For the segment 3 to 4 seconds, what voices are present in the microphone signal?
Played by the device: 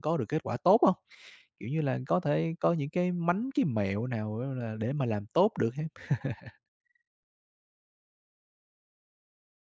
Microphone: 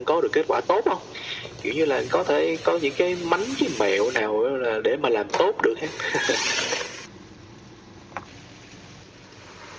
echo only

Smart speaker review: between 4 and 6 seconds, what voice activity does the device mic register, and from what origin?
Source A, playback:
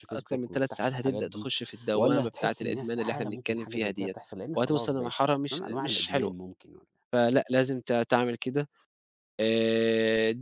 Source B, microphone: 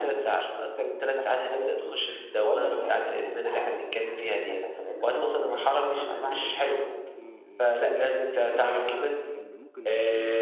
echo only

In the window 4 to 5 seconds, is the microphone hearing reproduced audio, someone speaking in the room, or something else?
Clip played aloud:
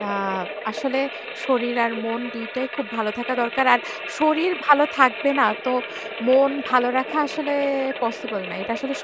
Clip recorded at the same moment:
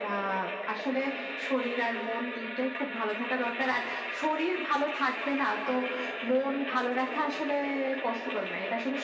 echo only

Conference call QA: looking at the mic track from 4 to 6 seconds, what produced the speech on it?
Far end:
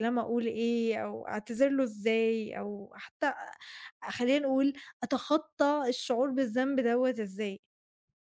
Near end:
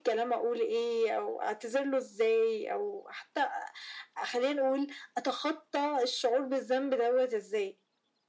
echo only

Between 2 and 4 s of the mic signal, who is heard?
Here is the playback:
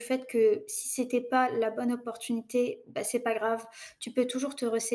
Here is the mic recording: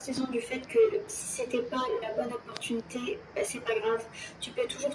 echo only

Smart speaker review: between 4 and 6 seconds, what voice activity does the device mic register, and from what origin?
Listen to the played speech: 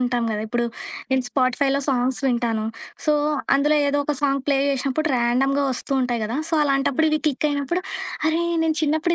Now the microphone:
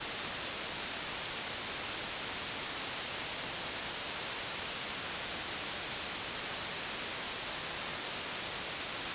neither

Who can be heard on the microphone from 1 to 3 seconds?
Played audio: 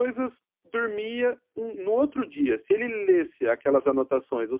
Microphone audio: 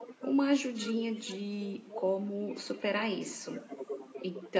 both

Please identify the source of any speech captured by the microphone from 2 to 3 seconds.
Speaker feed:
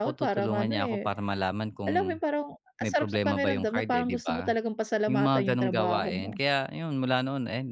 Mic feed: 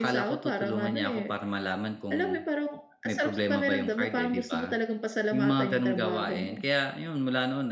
echo only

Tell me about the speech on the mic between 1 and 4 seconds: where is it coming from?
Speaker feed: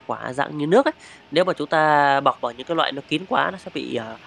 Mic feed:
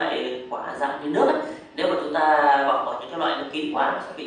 echo only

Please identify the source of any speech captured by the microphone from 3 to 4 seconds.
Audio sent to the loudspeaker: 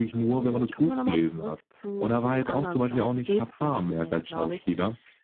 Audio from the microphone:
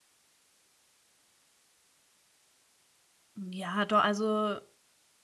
user only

